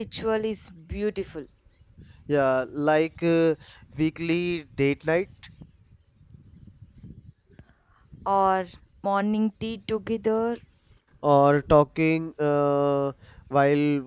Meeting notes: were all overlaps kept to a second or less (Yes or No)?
Yes